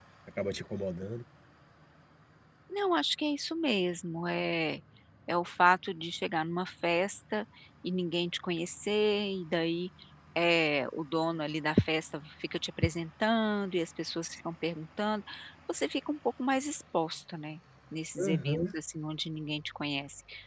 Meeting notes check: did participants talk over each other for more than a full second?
No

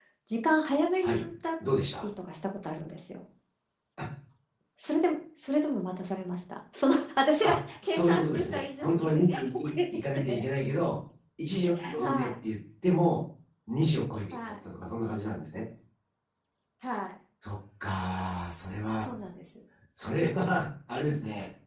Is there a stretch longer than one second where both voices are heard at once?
Yes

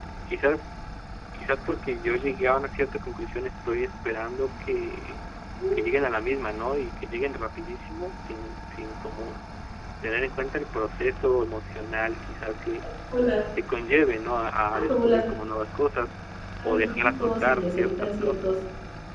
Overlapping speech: Yes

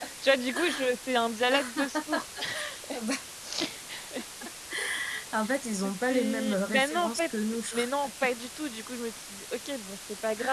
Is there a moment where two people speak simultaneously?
Yes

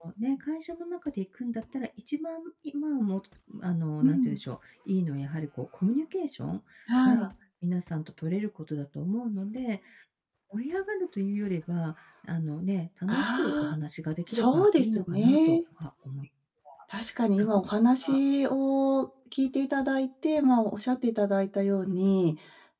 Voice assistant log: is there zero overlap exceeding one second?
No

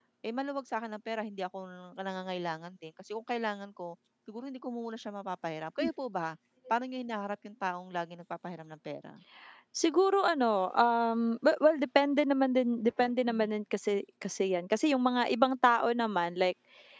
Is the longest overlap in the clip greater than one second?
No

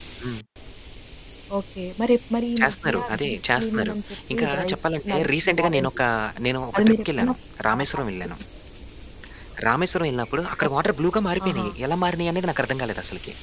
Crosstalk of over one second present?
Yes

